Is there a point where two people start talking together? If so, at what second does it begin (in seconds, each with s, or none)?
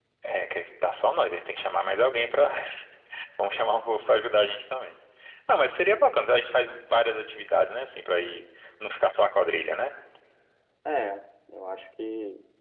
none